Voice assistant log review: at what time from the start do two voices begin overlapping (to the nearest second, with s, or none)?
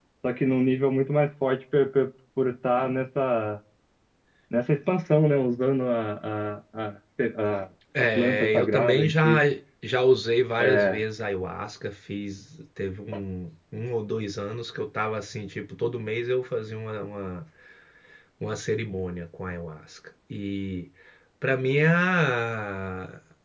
8 s